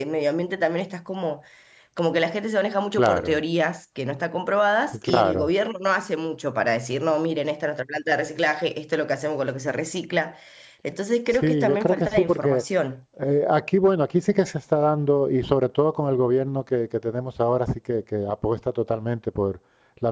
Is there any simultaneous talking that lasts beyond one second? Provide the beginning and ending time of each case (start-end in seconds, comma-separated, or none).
11.3-12.6